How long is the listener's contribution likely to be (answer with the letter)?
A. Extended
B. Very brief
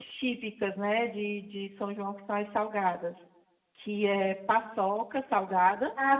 A